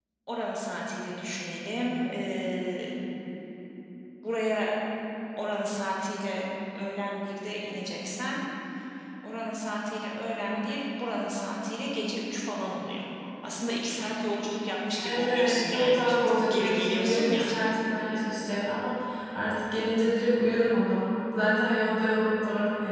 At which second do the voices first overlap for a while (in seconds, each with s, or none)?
15.0 s